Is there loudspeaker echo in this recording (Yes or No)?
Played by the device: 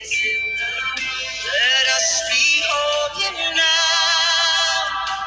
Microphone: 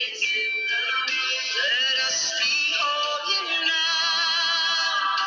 Yes